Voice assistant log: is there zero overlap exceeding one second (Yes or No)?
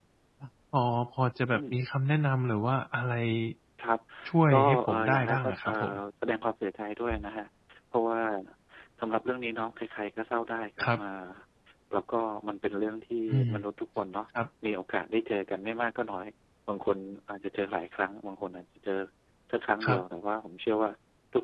No